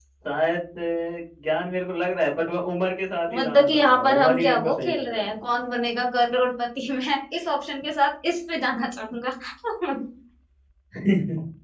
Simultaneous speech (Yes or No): Yes